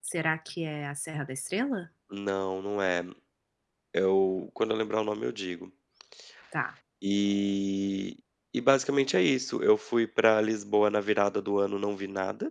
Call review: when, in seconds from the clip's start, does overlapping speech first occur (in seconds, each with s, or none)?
none